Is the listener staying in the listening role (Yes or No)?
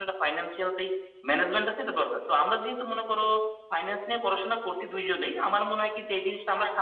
Yes